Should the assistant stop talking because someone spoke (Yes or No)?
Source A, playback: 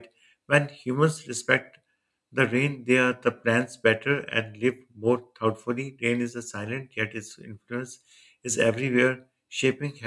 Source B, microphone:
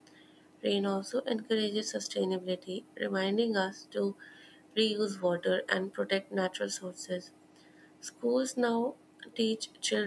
Yes